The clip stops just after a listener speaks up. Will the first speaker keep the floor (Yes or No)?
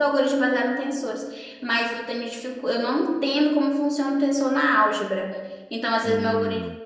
Yes